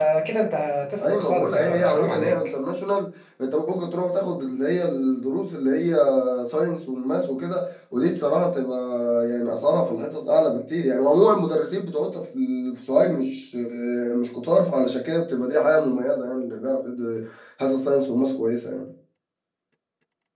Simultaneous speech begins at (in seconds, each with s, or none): 1.0 s